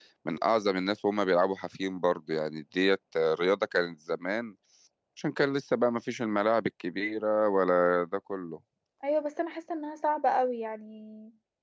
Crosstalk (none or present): none